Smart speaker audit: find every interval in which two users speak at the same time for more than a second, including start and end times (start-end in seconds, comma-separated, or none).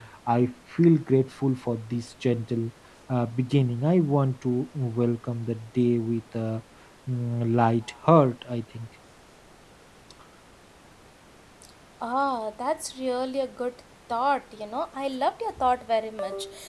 none